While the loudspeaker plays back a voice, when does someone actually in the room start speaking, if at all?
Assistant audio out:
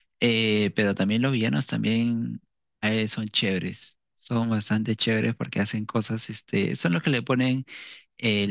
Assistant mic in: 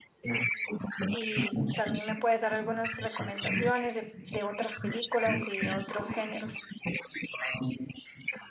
1 s

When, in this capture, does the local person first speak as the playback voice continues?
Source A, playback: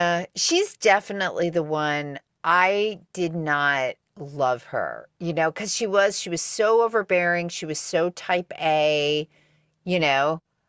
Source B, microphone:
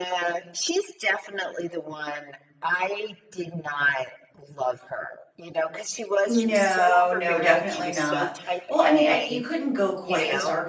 6 s

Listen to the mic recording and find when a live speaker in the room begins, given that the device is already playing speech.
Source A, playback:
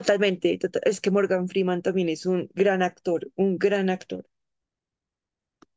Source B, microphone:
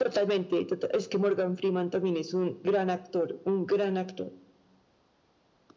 none

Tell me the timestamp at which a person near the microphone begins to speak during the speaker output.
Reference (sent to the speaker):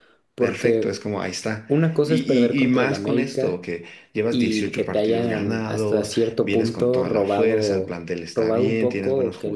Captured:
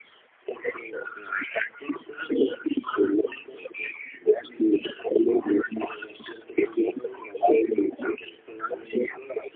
none

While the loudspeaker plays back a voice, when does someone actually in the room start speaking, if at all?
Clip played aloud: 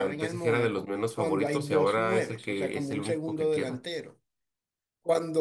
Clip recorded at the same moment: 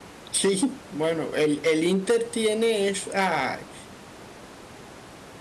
0 s

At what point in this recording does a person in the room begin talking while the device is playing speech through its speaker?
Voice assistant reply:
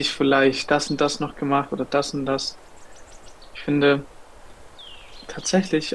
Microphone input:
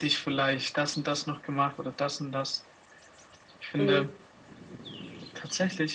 4 s

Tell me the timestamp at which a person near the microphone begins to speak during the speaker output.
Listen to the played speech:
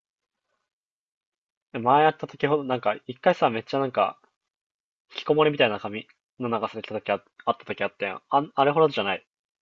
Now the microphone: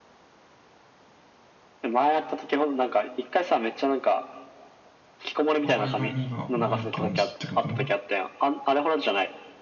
6 s

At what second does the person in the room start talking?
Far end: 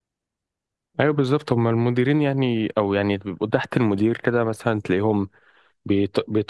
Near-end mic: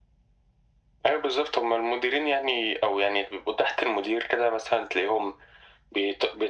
none

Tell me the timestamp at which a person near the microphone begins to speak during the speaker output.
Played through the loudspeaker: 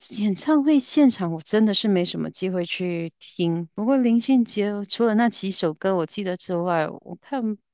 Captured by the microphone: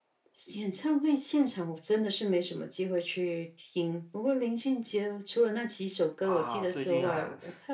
6 s

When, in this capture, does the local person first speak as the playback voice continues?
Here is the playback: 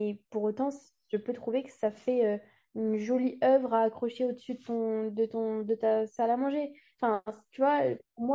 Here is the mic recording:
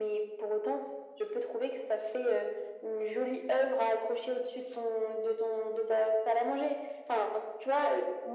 none

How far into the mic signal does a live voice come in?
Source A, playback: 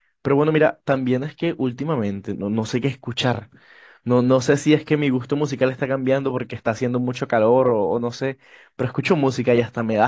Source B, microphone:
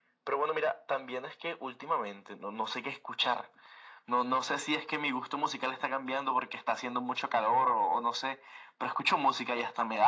none

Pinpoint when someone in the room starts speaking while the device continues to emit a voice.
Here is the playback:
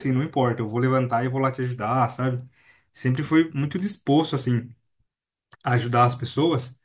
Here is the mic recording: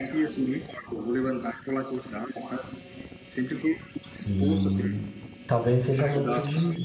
4 s

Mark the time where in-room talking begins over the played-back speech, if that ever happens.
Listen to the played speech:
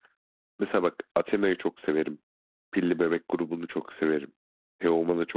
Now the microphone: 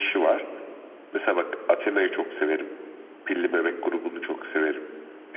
none

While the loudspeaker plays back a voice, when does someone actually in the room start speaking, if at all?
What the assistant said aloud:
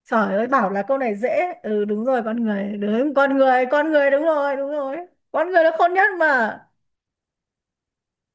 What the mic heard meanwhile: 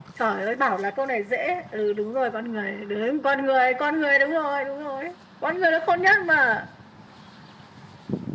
none

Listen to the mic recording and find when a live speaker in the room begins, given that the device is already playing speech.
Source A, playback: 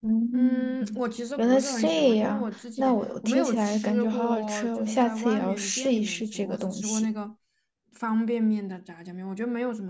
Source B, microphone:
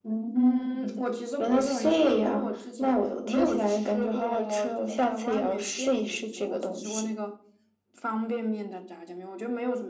none

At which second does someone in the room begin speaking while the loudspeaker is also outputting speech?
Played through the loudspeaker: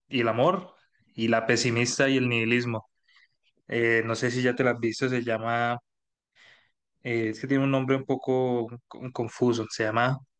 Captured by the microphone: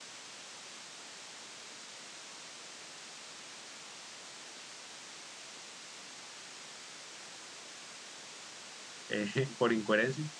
9 s

